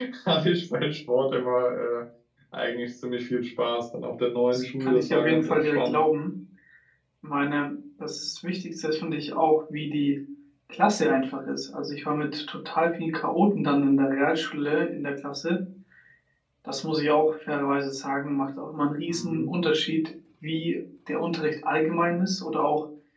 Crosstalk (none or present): present